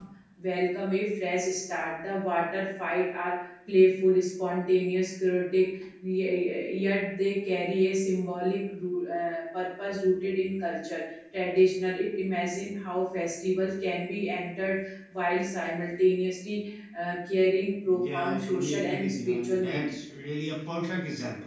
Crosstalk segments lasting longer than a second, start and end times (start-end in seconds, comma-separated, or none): 17.9-20.0